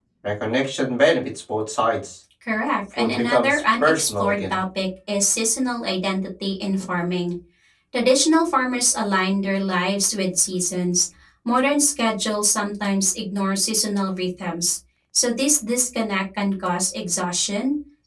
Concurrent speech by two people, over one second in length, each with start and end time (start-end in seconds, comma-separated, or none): 3.0-4.6